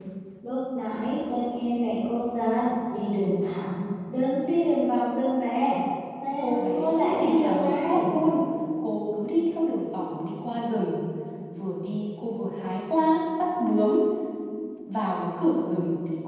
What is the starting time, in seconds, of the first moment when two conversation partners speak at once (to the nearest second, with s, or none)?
6 s